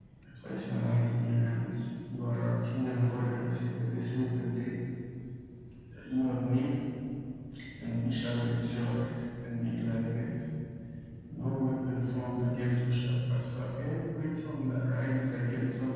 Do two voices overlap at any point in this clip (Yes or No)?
No